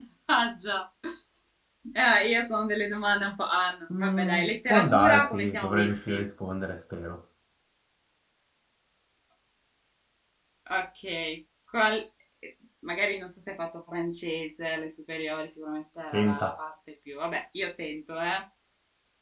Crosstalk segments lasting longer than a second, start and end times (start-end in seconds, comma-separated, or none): 4.0-6.2